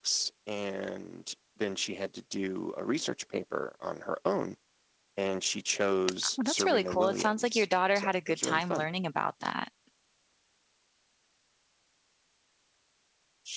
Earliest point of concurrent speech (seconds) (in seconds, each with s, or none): 6.4 s